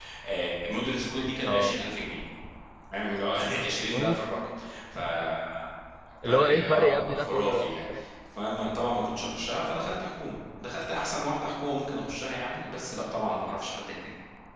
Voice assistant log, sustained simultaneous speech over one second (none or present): present